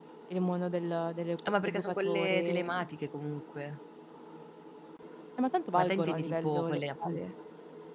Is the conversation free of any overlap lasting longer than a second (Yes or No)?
No